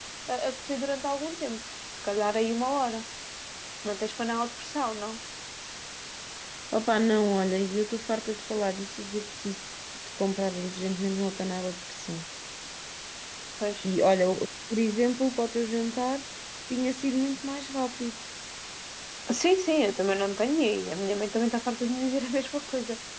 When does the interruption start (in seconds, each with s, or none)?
none